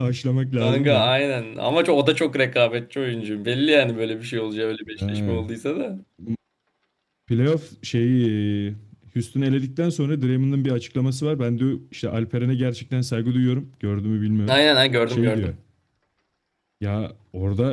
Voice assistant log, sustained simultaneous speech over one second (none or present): none